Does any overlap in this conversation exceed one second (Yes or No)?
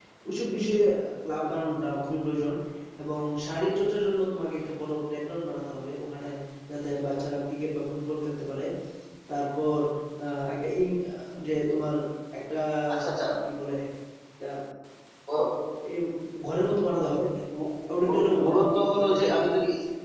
Yes